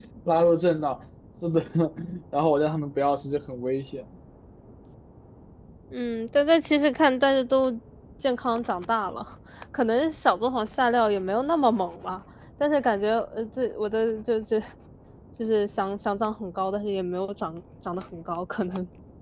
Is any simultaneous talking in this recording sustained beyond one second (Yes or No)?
No